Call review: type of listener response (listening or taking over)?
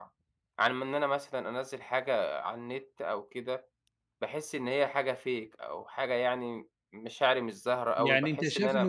taking over